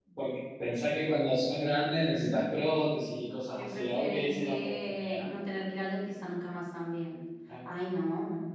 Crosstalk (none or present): present